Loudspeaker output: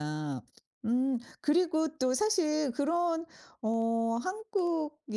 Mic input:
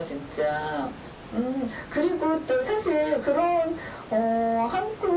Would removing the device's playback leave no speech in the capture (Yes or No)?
Yes